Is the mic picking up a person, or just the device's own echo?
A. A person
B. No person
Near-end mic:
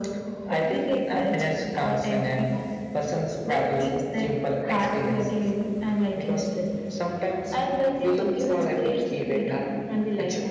B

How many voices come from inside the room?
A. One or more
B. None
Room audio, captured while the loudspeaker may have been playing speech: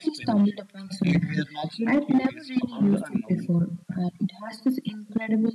B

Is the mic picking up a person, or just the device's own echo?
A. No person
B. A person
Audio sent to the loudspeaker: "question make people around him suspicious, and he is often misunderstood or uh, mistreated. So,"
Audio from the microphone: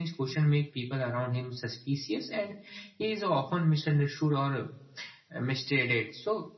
A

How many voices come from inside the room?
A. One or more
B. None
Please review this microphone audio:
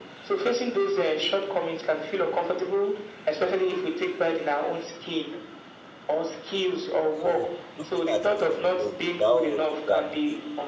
A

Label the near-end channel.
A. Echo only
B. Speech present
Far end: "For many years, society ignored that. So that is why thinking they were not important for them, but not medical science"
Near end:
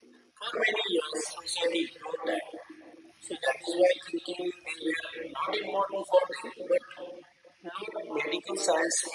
A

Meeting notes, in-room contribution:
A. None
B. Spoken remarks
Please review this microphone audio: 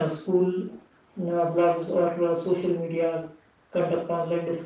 A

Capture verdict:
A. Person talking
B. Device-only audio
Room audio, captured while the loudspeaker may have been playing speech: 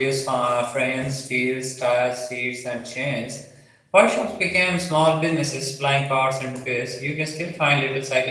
A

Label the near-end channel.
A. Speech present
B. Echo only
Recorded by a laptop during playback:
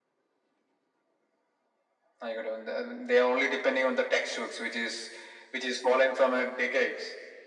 B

